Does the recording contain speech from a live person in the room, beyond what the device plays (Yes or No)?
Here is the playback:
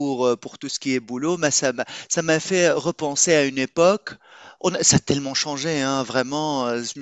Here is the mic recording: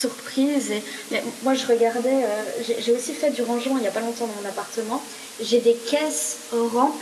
Yes